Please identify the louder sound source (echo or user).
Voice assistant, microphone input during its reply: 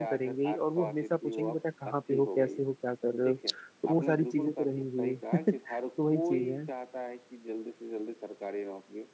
user